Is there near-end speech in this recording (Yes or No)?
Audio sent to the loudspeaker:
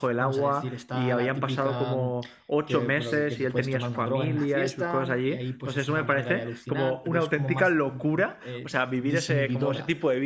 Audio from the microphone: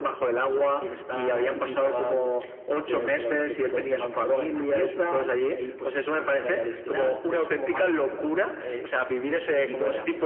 No